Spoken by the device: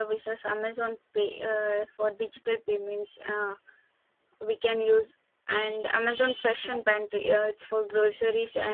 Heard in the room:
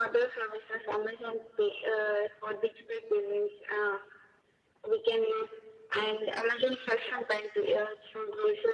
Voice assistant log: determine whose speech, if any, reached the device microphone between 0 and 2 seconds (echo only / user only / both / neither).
echo only